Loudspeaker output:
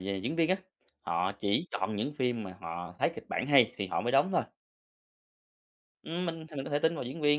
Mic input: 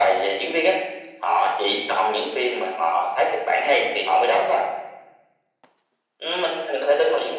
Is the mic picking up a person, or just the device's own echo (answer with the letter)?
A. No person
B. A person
A